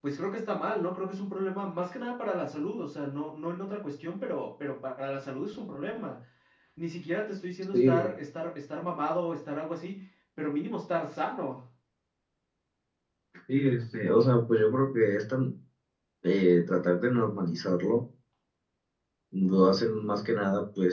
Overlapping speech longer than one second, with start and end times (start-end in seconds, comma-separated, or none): none